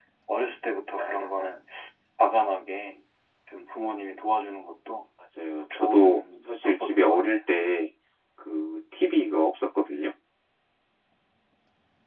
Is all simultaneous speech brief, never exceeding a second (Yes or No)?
No